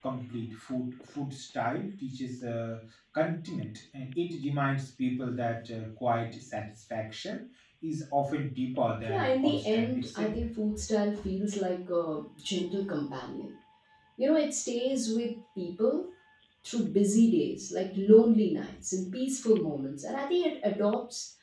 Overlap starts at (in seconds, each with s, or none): 9.1 s